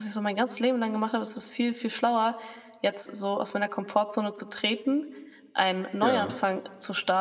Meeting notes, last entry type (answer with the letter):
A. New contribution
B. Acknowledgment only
B